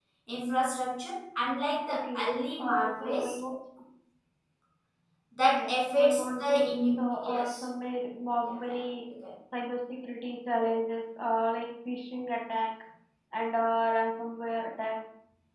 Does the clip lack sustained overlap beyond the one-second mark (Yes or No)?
No